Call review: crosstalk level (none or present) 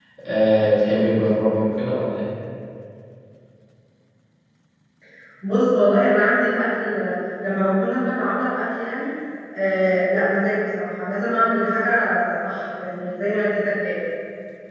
none